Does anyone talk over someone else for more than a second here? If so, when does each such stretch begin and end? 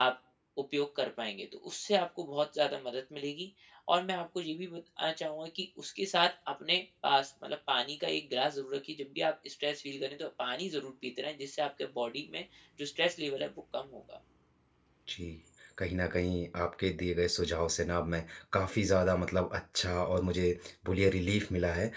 none

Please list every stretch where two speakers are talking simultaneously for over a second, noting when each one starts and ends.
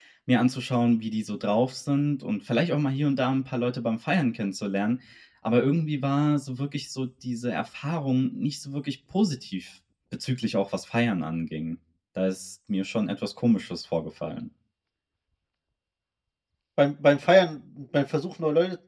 none

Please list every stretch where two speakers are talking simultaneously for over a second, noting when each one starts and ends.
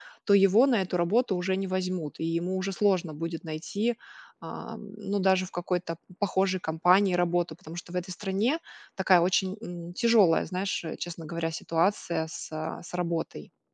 none

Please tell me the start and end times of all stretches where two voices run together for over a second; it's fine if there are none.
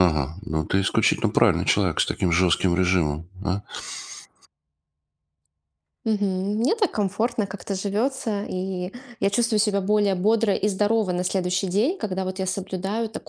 none

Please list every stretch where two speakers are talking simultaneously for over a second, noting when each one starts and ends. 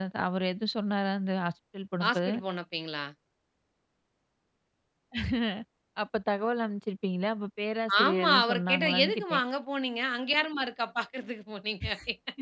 8.0-9.4

